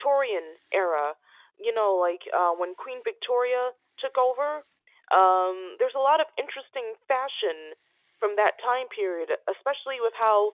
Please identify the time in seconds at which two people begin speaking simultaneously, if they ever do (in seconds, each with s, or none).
none